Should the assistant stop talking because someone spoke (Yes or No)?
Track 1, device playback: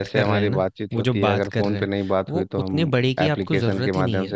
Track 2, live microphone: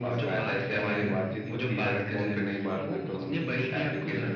Yes